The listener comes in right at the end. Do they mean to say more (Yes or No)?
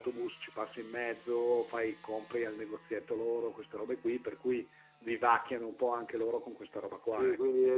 Yes